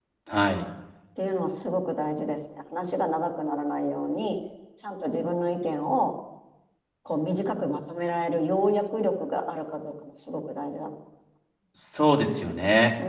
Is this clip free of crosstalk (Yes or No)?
Yes